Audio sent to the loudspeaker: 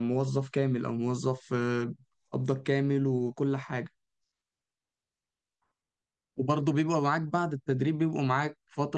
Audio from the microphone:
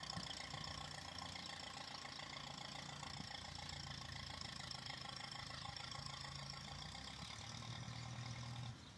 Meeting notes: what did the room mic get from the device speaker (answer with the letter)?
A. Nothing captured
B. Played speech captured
A